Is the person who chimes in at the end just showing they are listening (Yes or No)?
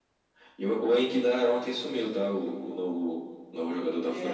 No